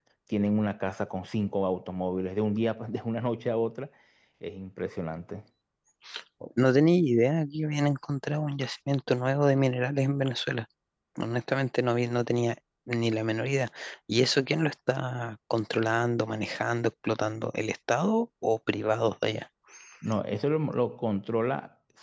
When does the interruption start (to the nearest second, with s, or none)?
none